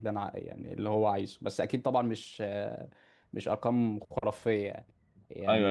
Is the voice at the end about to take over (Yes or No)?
No